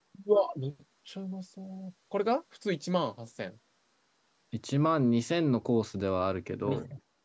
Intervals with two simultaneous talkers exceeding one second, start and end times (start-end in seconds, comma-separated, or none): none